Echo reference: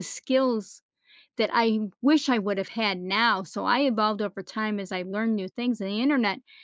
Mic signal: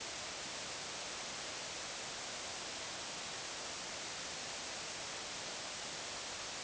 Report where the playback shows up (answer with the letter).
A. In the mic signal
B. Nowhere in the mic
B